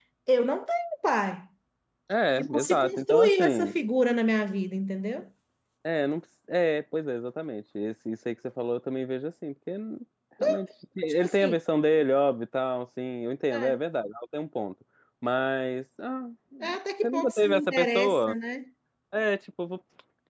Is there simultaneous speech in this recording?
Yes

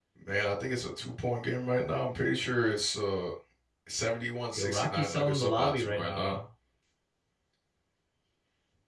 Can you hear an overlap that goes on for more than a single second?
Yes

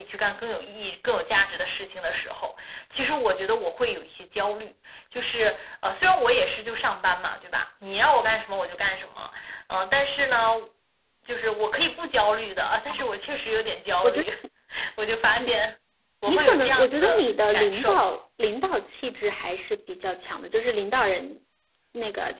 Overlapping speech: Yes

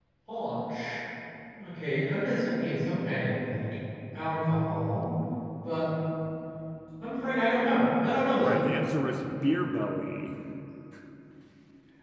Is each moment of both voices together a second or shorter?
Yes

